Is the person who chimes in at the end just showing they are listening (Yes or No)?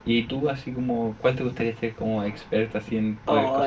No